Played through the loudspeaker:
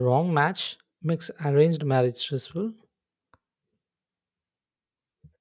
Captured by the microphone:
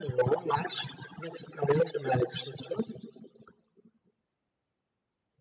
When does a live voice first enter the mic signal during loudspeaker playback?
none

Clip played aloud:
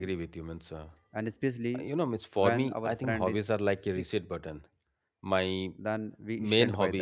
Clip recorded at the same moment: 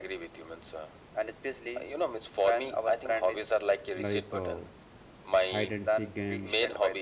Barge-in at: 3.9 s

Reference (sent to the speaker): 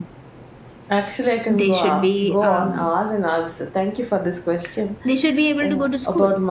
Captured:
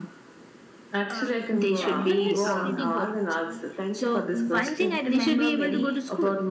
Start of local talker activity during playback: 1.1 s

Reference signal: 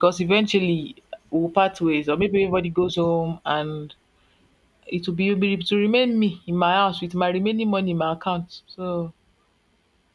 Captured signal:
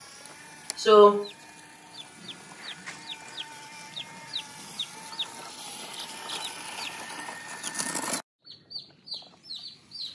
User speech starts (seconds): 0.8 s

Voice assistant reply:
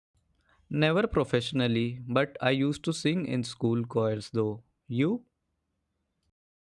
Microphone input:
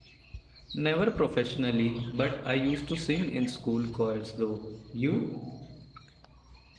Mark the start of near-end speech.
none

